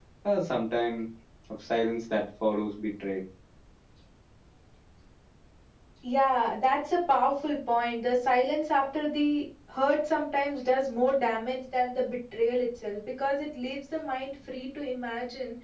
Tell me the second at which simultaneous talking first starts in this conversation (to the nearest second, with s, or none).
none